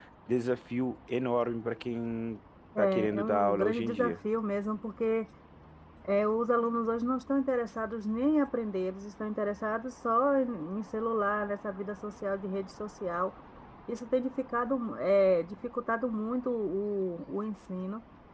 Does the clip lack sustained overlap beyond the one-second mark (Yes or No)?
No